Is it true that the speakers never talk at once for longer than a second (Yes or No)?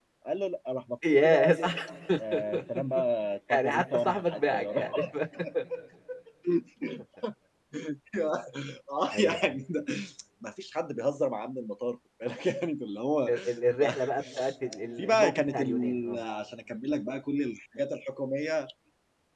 No